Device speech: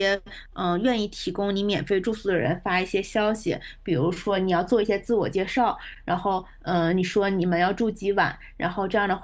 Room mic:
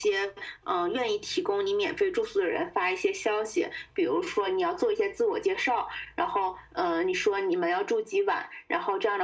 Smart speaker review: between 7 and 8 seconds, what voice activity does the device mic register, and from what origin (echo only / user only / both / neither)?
echo only